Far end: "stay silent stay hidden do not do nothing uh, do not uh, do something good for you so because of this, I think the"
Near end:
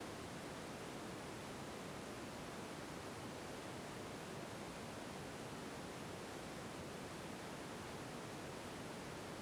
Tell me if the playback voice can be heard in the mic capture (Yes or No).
No